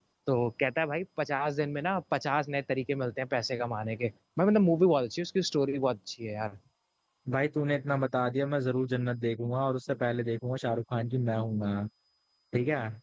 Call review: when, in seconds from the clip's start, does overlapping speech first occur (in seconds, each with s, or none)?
none